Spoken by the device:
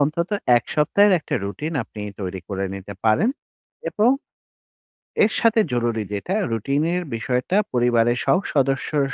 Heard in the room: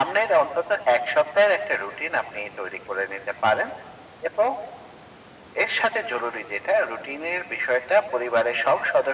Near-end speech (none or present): none